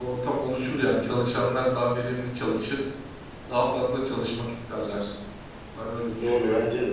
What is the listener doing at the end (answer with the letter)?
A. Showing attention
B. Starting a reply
B